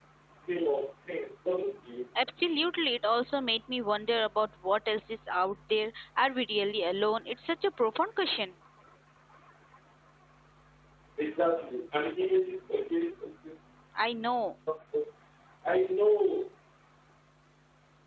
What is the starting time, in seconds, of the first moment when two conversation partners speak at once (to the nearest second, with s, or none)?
none